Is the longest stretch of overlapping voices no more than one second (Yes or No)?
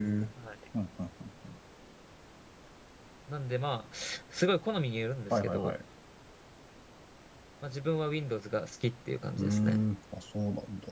Yes